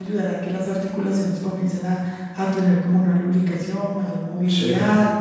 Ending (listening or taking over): listening